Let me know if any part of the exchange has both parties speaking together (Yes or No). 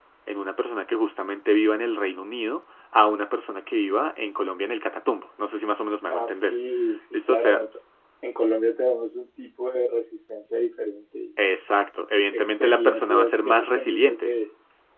Yes